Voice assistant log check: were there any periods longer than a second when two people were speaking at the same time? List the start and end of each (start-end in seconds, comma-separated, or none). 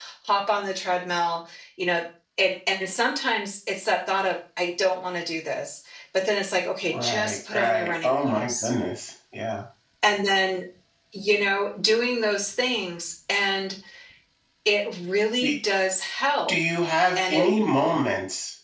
6.8-8.7